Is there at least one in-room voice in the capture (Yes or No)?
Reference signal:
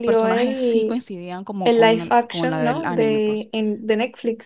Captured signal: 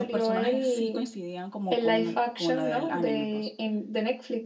No